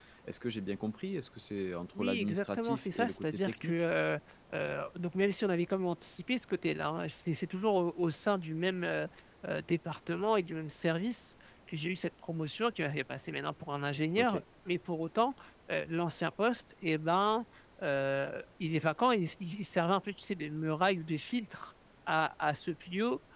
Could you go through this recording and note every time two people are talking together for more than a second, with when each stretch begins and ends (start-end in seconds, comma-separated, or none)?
2.0-3.7